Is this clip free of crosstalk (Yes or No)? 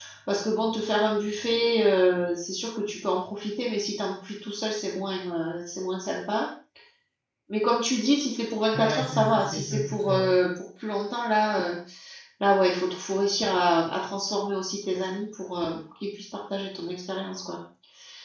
No